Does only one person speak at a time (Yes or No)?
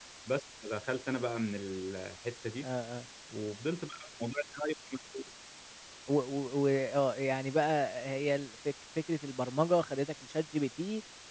Yes